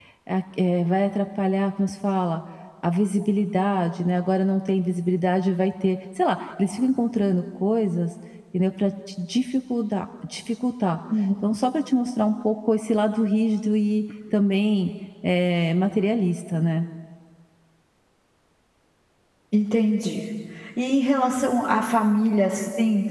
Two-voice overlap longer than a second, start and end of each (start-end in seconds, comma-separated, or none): none